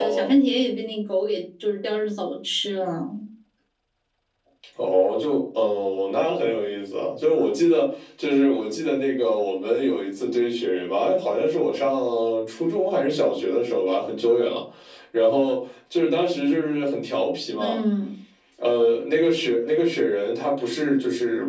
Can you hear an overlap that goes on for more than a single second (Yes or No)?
No